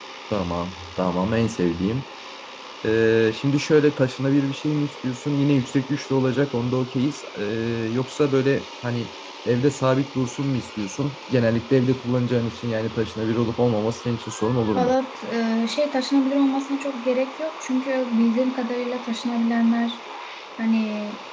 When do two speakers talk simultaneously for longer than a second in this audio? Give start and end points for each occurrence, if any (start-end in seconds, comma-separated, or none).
none